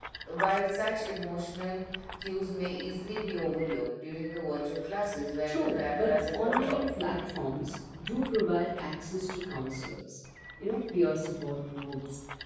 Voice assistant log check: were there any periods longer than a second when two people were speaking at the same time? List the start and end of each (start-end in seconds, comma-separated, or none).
5.5-6.8